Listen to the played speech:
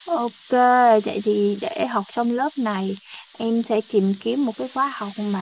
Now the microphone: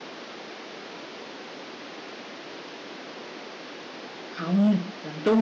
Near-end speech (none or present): present